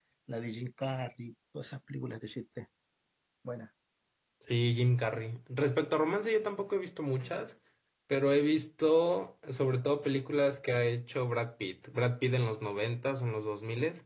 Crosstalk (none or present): none